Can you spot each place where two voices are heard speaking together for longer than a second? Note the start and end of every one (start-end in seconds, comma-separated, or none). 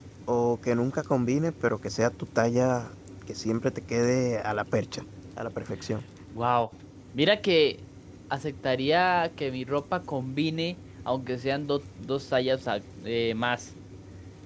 none